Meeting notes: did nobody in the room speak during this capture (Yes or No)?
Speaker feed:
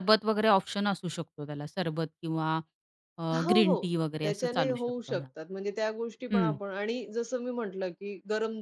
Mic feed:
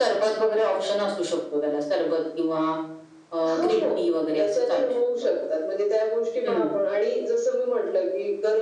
Yes